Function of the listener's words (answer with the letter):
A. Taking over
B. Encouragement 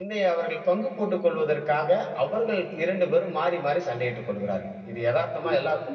A